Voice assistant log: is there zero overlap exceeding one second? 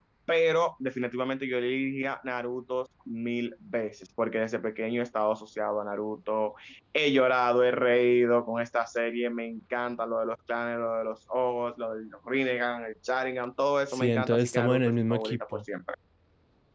No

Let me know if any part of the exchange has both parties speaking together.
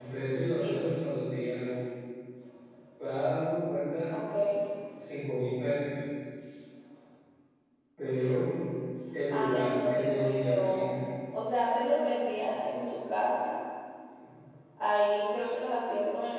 Yes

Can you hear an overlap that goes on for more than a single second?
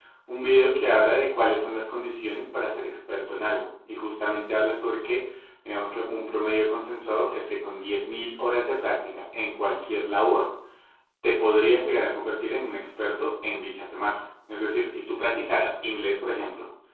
No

